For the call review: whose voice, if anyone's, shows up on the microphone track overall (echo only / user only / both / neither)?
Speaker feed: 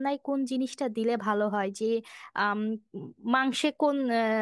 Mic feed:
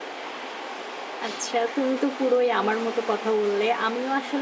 user only